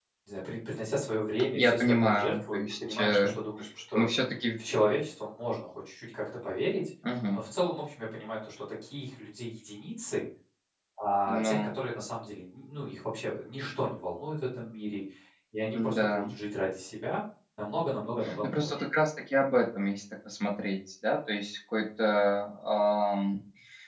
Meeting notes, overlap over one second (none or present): present